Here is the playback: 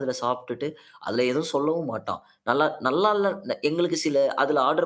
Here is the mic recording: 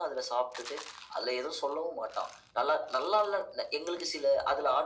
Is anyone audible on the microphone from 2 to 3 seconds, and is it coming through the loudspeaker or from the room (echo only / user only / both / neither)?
echo only